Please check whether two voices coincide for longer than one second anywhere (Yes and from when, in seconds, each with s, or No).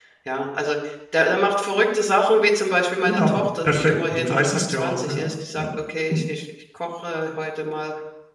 Yes, from 3.1 s